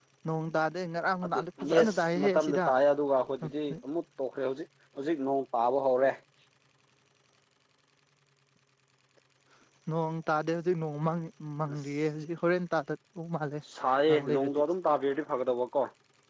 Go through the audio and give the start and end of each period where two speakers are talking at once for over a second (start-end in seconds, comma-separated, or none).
1.2-2.6